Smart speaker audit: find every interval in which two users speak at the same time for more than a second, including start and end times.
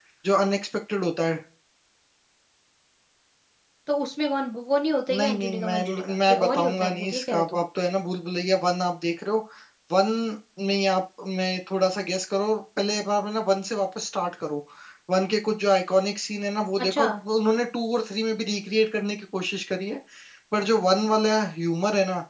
5.1-7.6

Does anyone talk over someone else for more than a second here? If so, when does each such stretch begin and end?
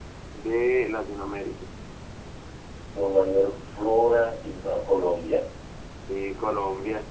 none

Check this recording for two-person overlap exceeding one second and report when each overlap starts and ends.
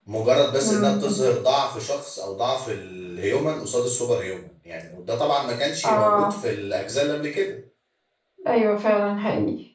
none

